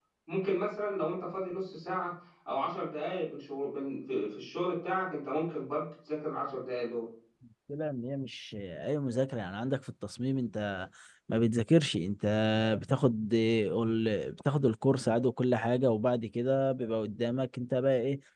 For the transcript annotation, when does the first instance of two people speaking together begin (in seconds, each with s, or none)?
none